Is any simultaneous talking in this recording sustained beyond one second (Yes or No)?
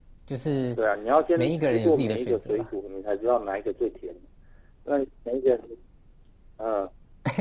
Yes